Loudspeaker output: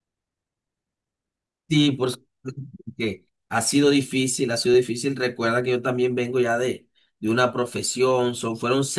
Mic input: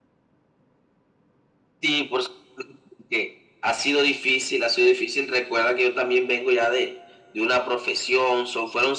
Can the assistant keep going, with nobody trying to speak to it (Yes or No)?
Yes